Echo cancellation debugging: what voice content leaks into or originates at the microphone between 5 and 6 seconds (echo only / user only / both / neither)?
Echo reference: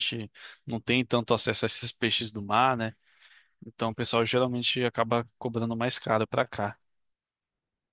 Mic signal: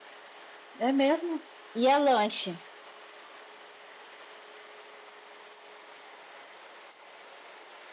neither